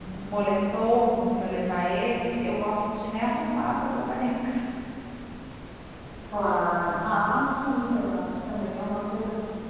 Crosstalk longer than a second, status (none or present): none